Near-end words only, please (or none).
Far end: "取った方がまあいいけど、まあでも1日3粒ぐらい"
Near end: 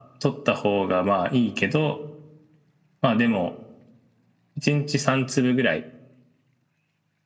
none